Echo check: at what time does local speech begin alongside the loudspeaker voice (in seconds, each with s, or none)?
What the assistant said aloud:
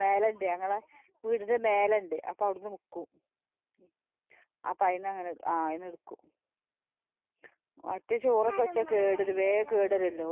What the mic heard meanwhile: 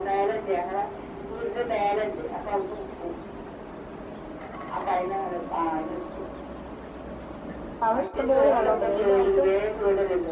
7.8 s